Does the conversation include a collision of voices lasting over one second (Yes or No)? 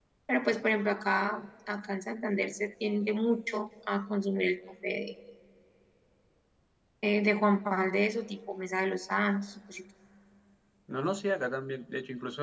No